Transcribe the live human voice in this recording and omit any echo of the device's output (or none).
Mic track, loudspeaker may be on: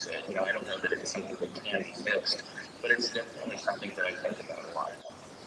none